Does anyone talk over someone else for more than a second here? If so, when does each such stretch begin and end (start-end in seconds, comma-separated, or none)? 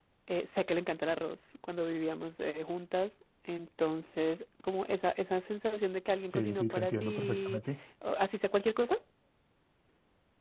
6.3-7.6